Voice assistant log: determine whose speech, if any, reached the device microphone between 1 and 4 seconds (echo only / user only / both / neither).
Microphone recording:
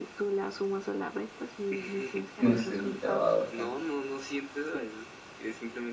both